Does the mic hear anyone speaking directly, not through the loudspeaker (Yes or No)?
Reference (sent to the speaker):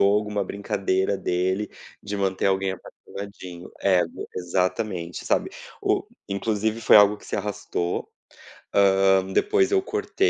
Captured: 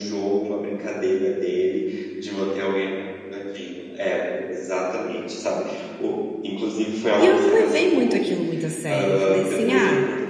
Yes